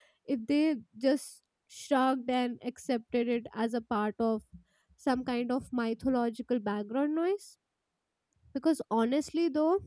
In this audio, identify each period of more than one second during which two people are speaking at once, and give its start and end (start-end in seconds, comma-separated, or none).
none